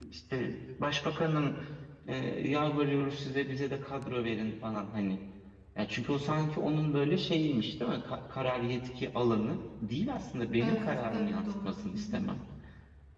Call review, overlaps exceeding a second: present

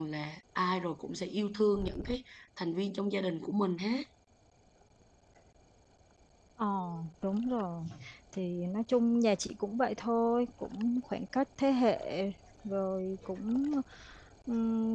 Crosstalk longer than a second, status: none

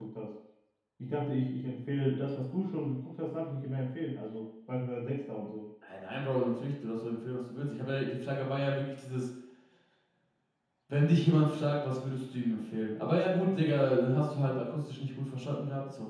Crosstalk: none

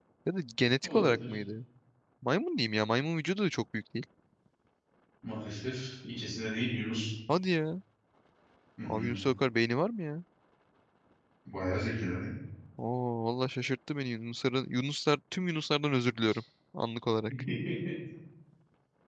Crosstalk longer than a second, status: none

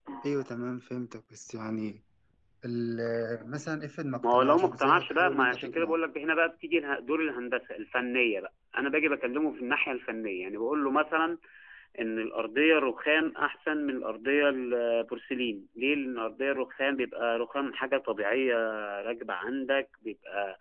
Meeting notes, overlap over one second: present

